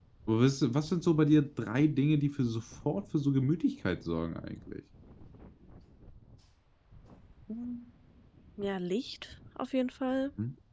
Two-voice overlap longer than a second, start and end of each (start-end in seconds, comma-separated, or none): none